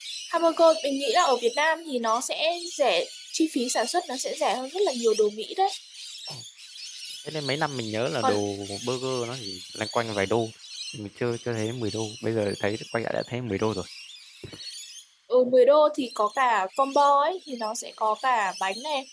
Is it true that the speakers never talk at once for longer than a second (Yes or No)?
Yes